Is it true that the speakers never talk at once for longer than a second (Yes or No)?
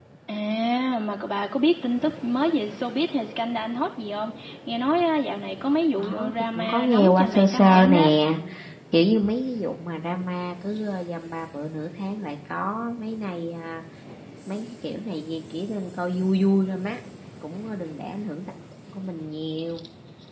No